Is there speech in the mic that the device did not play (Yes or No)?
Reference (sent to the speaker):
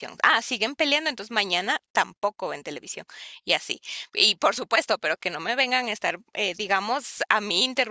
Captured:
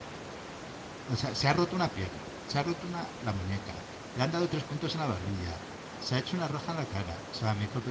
Yes